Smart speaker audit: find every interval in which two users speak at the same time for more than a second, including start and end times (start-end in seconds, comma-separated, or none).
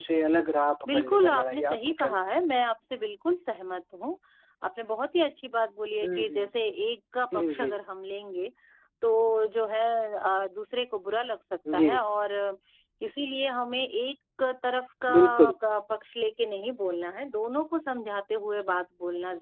0.9-2.2